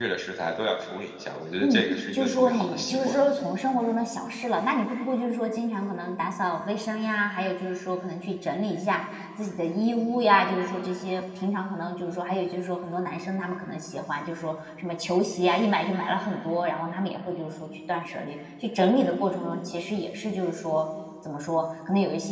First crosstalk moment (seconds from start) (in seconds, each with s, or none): 1.6 s